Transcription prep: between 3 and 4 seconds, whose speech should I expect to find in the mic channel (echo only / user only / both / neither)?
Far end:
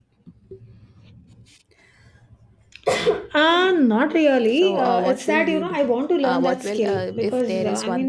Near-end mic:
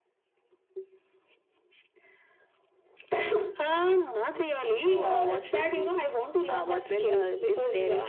echo only